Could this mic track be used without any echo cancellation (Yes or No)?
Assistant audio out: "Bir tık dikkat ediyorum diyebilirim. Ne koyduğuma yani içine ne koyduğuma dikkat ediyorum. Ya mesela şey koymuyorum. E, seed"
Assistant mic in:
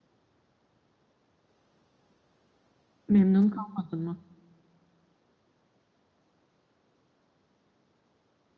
Yes